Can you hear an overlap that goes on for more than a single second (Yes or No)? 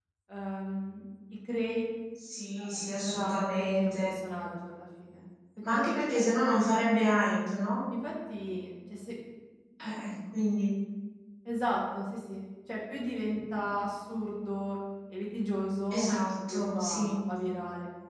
Yes